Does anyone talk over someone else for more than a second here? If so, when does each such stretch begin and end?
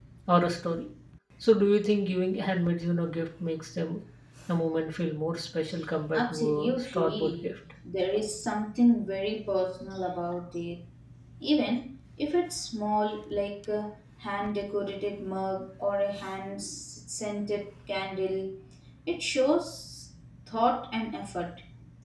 6.1-7.5

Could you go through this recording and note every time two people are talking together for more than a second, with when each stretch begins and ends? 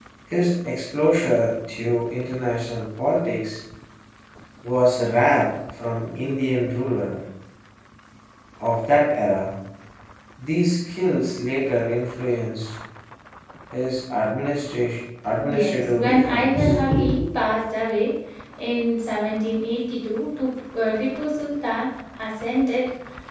15.5-16.7

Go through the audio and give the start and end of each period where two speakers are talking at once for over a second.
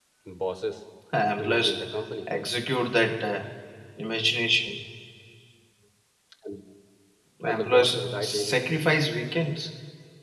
7.4-9.0

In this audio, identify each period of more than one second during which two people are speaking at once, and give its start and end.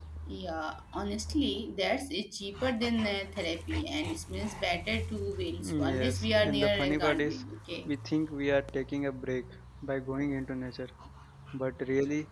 5.8-7.4

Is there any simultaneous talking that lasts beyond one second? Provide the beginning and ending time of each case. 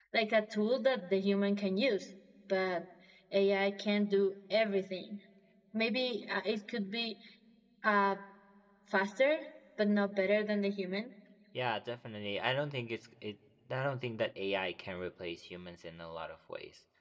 none

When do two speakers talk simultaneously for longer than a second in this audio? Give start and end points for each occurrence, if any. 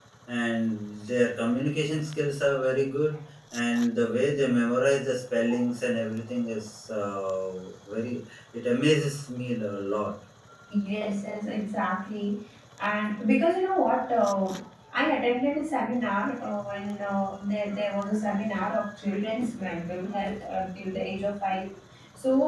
none

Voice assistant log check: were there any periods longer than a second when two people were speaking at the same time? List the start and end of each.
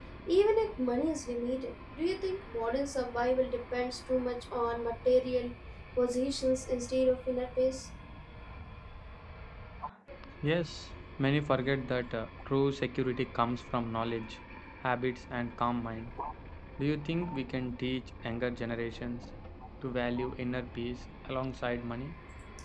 none

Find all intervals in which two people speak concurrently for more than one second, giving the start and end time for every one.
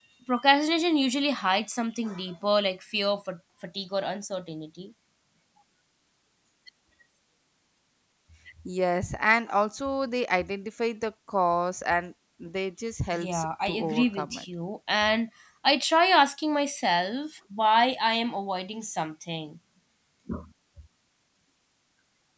13.1-14.4

